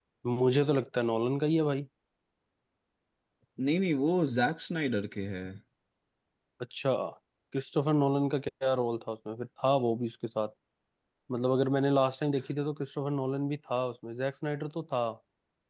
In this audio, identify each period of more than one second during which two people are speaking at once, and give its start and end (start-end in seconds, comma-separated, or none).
none